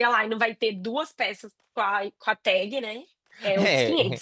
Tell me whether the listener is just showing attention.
No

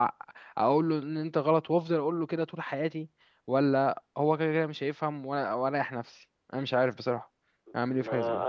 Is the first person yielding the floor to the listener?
Yes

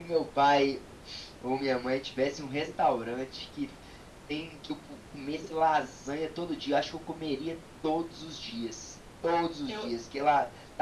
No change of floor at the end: Yes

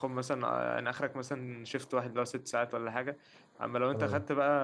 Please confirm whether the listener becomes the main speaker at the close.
No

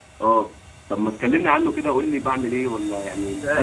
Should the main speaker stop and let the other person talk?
Yes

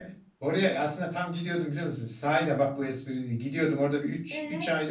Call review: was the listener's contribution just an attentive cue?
Yes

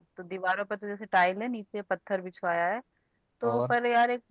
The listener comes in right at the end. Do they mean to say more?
No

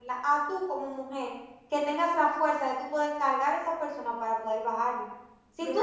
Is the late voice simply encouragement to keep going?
Yes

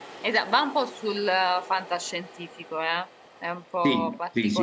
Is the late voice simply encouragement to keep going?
No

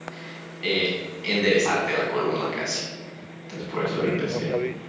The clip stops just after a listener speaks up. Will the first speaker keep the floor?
No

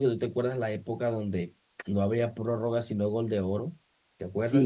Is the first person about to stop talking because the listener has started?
Yes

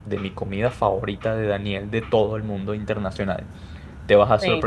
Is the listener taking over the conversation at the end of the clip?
No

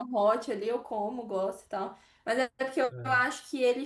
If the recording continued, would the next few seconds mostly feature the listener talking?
No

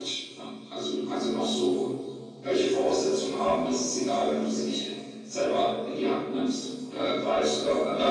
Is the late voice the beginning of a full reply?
No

